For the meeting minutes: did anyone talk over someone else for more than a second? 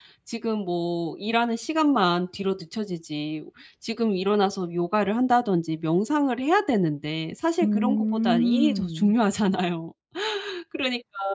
Yes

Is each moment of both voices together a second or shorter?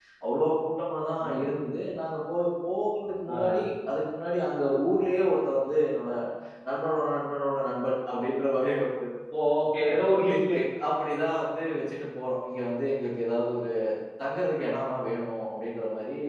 Yes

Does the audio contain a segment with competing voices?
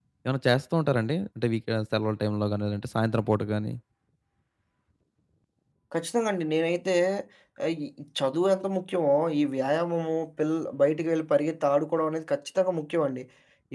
No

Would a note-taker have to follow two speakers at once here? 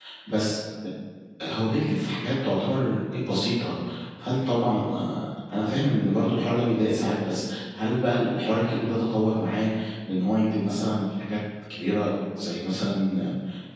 No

